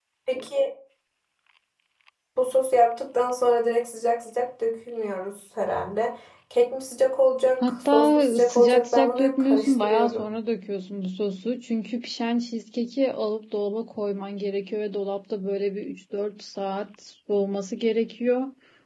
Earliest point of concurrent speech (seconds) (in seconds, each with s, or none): 7.6 s